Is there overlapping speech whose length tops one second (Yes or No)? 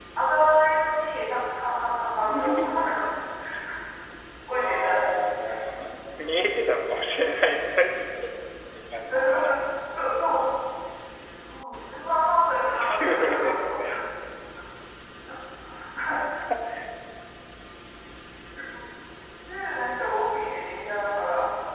Yes